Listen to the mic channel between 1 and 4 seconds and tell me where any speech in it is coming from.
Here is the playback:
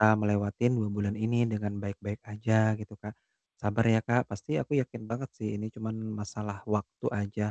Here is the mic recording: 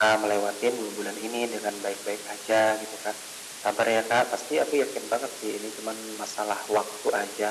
echo only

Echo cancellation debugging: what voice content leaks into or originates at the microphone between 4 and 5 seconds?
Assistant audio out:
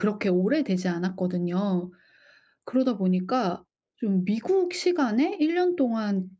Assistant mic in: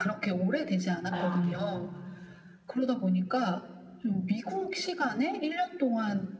echo only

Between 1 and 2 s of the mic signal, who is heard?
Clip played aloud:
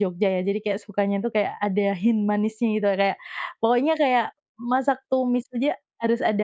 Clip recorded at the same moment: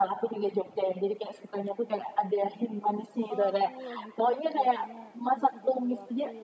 echo only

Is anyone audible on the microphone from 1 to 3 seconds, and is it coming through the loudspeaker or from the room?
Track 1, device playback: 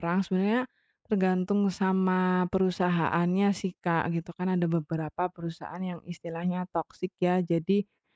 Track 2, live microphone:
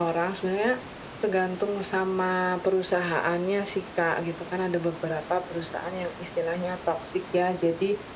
echo only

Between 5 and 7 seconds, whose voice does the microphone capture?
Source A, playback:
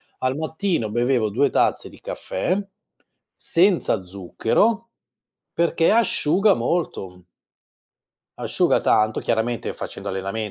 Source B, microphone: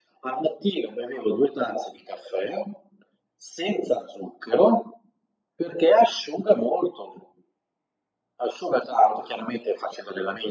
echo only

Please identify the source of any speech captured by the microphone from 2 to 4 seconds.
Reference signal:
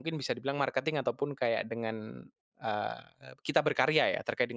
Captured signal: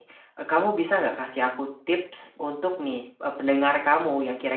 user only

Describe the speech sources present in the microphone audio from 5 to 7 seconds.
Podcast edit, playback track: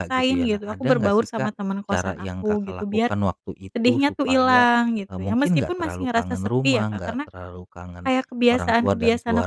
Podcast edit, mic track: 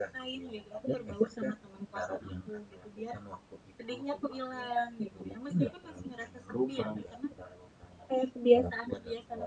echo only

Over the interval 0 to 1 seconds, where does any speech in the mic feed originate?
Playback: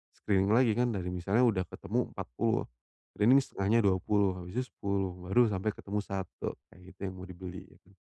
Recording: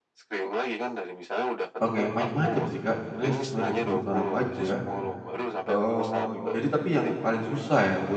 echo only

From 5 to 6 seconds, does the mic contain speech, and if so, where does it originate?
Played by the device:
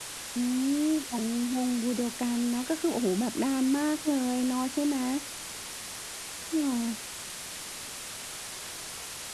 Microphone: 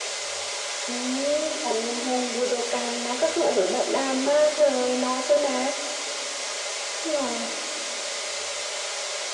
echo only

